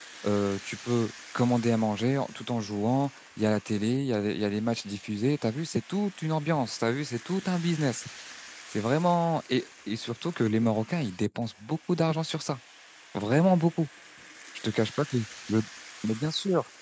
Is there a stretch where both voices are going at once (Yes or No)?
No